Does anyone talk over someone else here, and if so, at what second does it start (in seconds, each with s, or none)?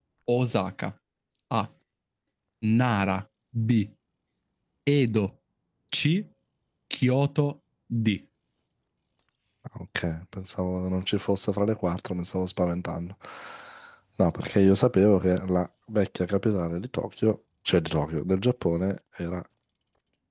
none